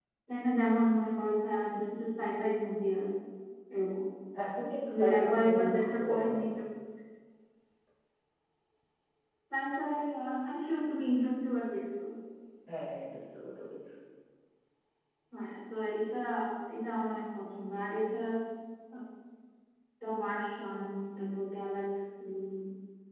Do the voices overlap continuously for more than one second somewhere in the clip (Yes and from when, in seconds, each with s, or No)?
Yes, from 4.9 s